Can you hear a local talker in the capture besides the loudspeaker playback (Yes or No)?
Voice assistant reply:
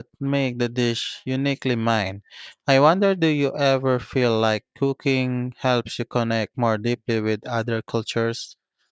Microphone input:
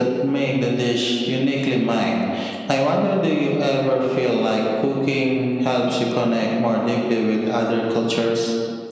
No